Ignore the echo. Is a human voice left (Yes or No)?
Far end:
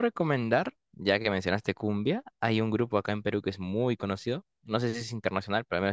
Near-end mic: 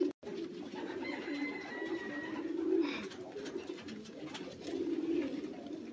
No